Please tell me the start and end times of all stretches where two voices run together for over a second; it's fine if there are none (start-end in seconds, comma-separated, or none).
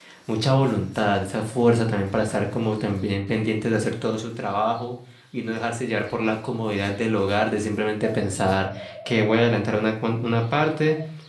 none